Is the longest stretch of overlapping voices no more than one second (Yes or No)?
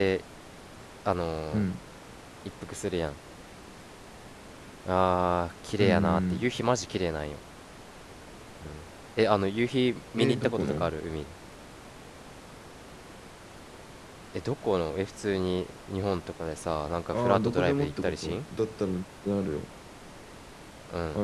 No